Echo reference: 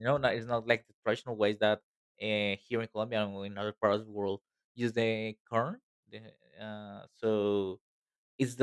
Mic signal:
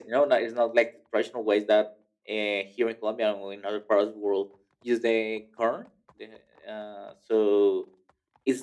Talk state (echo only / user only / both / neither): echo only